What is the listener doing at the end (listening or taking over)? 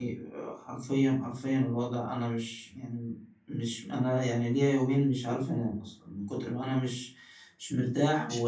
listening